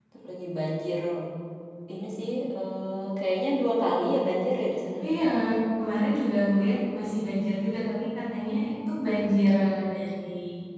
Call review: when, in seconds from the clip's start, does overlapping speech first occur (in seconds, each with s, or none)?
none